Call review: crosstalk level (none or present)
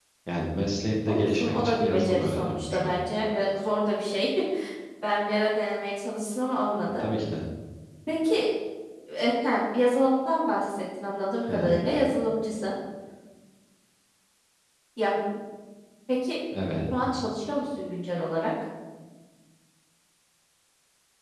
present